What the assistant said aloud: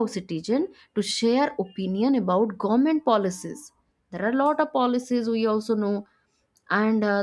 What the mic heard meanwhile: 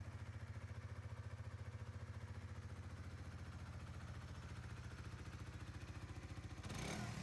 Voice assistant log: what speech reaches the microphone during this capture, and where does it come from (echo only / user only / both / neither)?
neither